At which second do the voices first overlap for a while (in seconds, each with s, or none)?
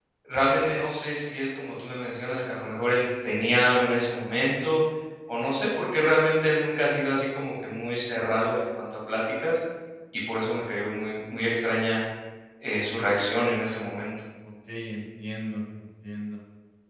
none